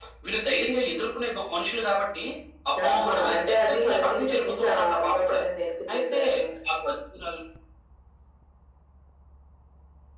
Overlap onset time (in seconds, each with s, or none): 2.9 s